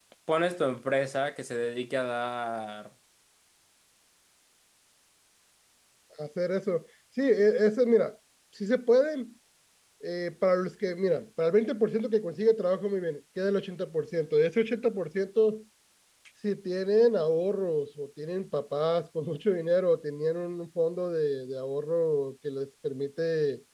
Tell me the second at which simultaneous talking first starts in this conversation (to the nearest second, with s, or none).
none